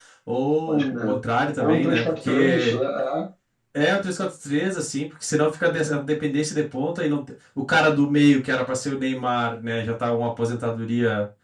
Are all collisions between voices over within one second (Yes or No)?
No